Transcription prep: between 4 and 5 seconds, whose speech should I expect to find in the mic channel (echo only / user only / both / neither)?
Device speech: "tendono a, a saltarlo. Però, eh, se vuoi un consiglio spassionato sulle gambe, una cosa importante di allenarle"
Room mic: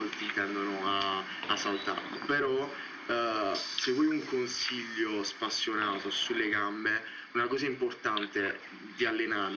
echo only